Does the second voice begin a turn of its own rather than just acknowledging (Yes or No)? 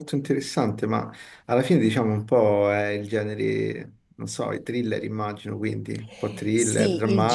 Yes